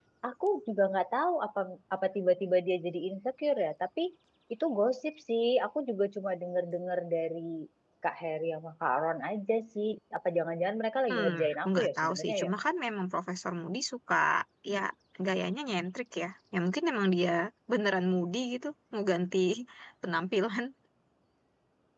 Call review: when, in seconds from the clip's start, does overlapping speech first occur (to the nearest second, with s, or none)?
11 s